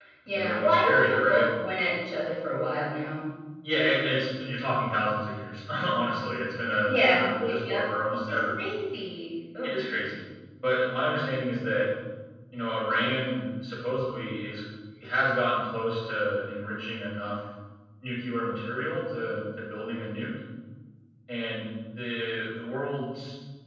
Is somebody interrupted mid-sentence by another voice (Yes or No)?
Yes